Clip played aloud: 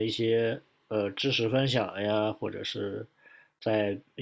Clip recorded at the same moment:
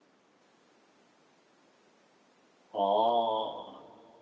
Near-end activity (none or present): present